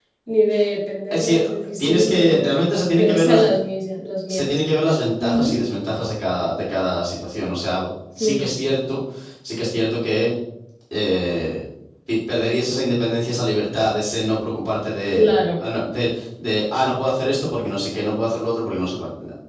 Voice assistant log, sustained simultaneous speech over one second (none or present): present